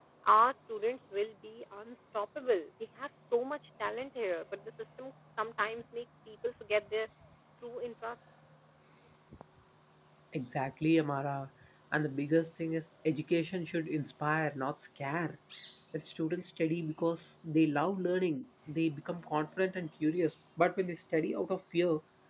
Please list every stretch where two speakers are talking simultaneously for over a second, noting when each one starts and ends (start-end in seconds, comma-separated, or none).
none